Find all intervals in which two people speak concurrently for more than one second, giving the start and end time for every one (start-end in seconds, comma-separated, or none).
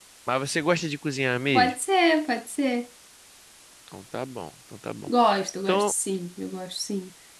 none